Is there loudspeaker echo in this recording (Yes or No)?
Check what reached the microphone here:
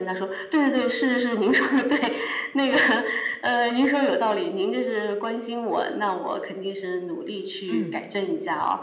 Yes